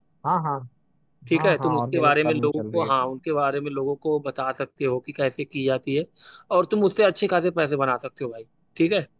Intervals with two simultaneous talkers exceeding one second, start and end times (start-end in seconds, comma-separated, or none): 1.3-3.1